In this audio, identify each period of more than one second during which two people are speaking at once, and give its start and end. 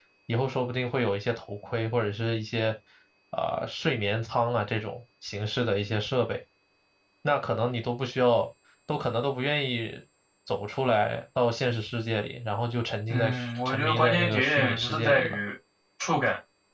13.1-15.4

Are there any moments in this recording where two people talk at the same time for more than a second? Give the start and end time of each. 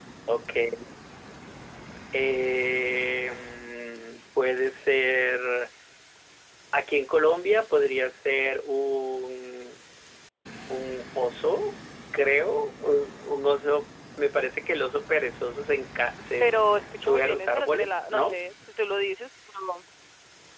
17.0-18.4

